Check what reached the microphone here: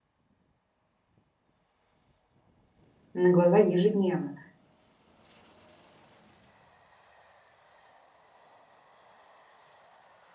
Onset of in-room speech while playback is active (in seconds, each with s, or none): 3.1 s